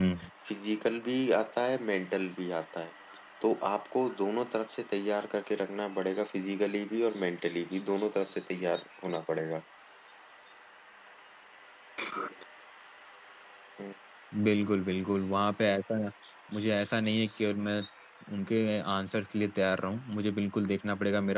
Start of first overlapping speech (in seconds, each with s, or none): none